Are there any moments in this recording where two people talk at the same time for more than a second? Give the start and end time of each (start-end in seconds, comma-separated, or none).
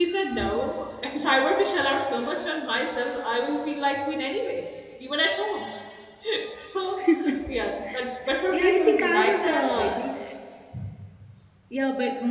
8.5-9.9